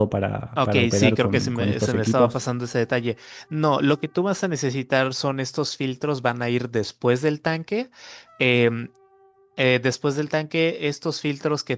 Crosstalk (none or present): present